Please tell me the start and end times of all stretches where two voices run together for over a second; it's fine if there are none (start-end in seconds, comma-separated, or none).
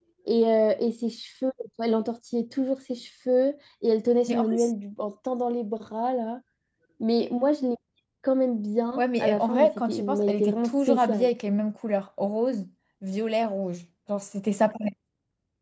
9.0-11.3